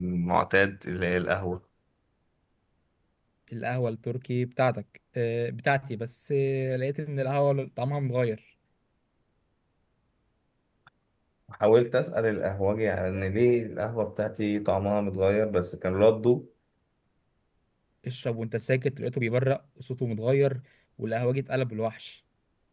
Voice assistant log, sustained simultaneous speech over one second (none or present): none